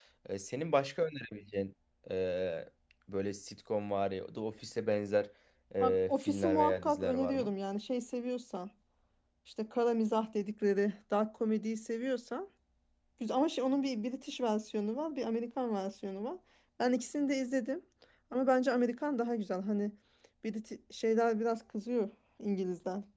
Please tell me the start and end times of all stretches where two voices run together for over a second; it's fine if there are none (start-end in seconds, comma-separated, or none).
5.8-7.5